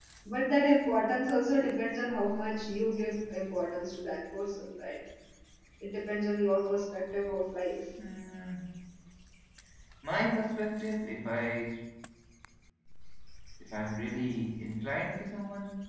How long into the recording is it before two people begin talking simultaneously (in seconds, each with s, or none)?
none